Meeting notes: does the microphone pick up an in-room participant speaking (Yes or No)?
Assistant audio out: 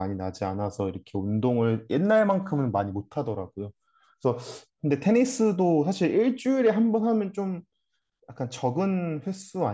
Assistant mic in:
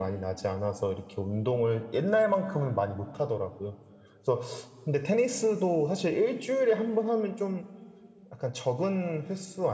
No